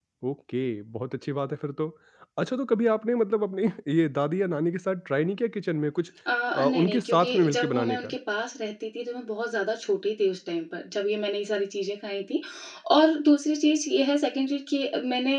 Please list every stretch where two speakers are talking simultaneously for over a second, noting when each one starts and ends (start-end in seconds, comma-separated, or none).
6.5-8.1